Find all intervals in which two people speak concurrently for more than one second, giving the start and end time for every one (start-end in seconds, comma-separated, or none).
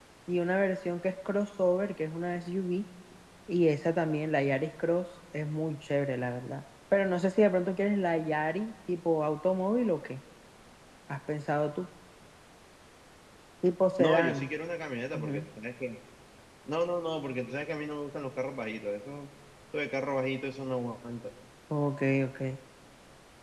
none